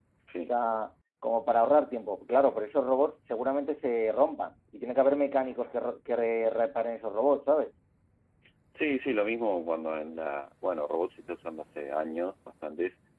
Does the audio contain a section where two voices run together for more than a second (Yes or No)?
No